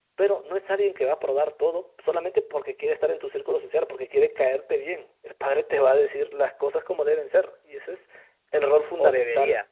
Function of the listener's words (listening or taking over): taking over